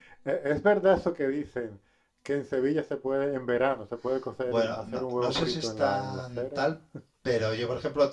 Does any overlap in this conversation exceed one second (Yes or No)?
Yes